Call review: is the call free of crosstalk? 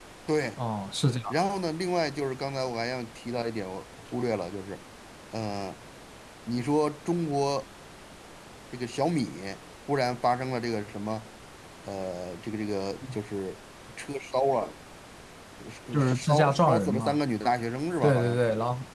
No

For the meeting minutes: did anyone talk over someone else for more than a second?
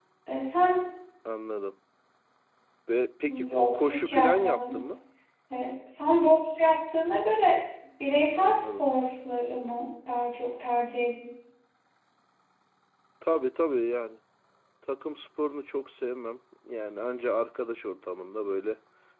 Yes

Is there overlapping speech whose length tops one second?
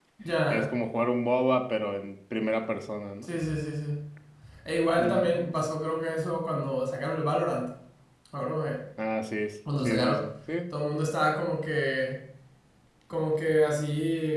No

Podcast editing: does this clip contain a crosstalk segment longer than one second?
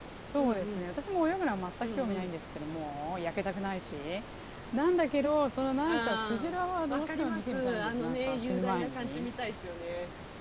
Yes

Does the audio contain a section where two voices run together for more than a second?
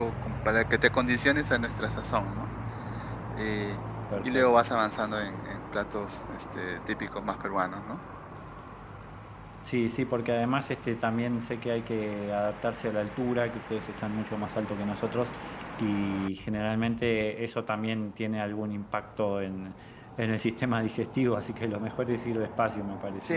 No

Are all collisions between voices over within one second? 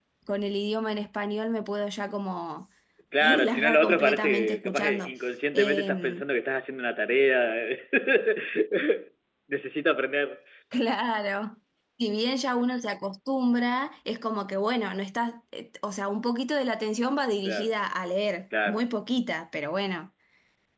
No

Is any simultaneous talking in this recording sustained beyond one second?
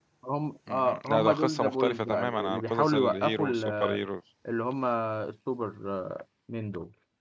Yes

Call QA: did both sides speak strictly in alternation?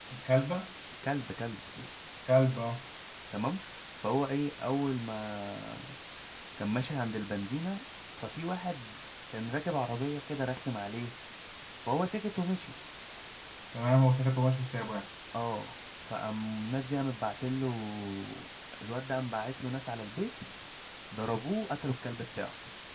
Yes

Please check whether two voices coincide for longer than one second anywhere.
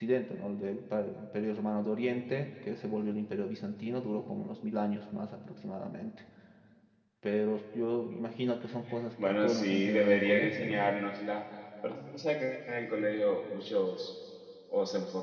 Yes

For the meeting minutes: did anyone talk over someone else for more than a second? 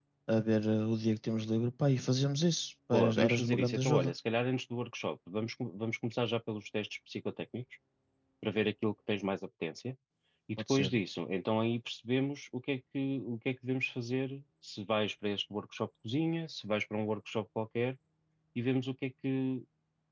Yes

